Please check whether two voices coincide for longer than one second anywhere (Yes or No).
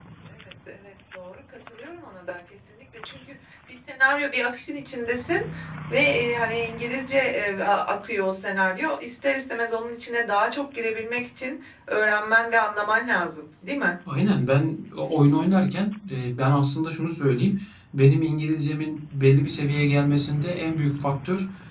No